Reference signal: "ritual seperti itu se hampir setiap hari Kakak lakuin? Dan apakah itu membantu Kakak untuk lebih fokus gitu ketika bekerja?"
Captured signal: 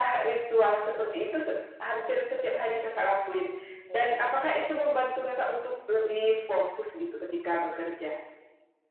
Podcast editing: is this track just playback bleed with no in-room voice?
Yes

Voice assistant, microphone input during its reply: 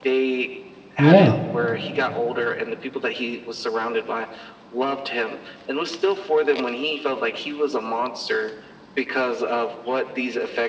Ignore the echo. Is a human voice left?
Yes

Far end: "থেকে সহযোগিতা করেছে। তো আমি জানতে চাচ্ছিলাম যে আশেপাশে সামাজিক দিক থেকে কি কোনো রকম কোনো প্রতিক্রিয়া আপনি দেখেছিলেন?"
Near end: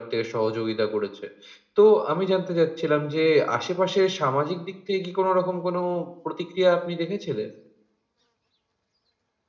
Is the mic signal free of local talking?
Yes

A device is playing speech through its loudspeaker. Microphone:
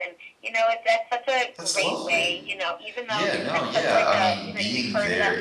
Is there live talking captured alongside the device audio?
Yes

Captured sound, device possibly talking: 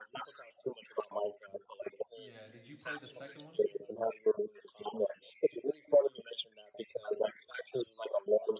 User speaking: Yes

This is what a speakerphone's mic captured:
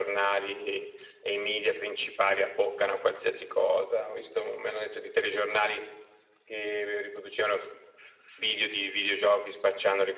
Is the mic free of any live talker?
Yes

